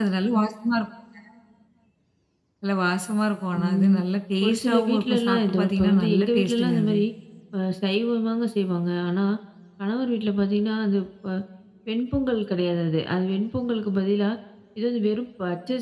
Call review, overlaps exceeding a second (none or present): present